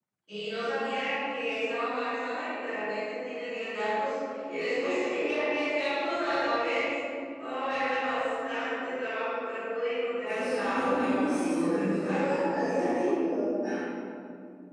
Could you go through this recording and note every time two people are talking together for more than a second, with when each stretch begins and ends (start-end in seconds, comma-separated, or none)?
10.2-12.4